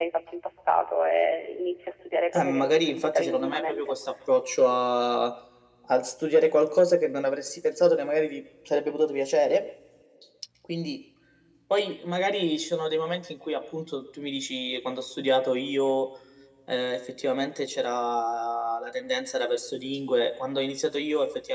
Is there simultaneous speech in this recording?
Yes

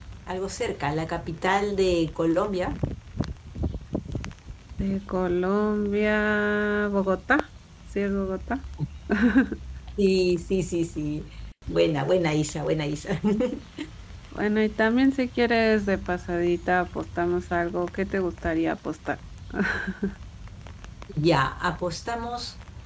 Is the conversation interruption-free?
Yes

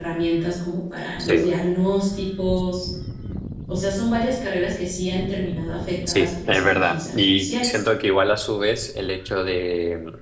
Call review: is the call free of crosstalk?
No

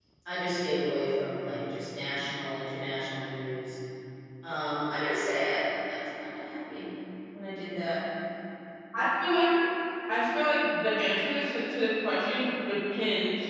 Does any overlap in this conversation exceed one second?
No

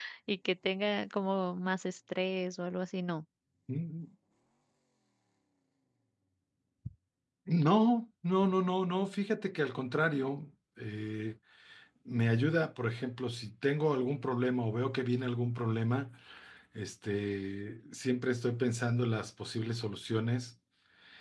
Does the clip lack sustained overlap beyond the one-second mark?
Yes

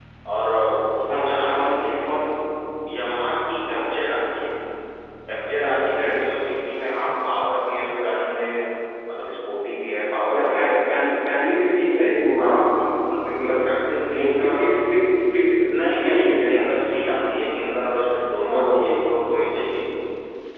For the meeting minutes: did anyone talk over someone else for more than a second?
Yes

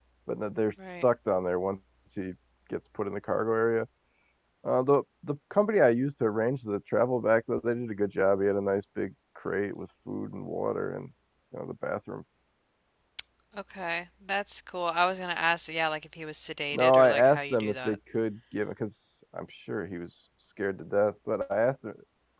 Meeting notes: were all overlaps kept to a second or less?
No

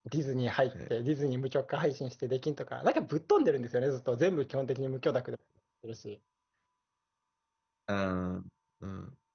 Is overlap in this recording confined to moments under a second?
Yes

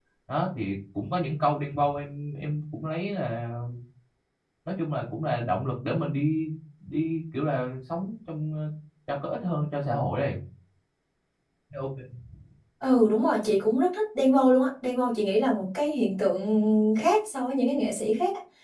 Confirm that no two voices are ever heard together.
Yes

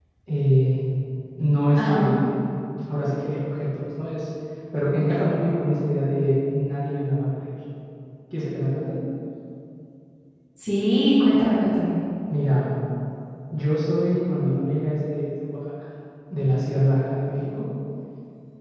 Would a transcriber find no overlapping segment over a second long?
Yes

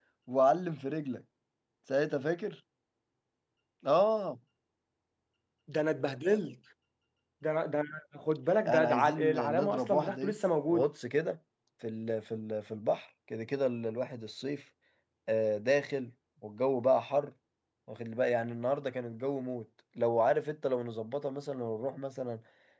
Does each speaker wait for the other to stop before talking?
No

